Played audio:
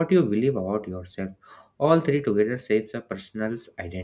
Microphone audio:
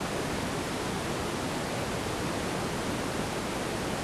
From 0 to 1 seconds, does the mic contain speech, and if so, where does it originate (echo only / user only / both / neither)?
neither